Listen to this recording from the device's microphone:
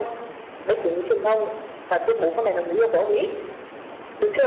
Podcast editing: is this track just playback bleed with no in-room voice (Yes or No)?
Yes